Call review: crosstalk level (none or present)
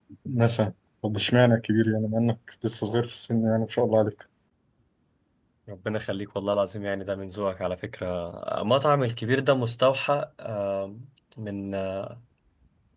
none